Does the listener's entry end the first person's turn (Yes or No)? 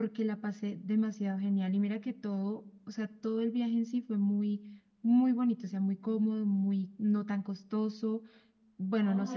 Yes